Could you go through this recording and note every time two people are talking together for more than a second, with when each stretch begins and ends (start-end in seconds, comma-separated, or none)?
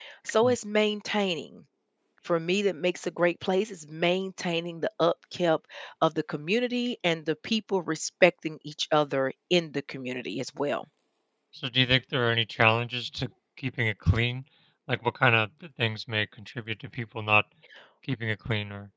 none